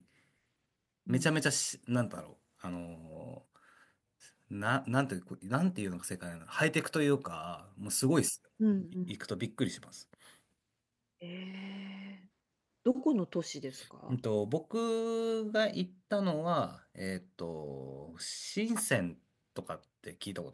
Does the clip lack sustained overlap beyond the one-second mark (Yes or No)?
Yes